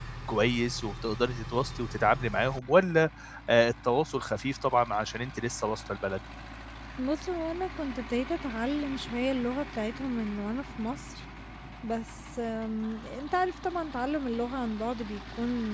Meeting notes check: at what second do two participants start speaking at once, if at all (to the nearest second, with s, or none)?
none